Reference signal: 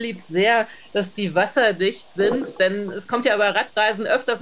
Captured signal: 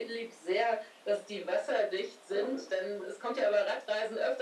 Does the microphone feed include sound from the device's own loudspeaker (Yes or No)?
Yes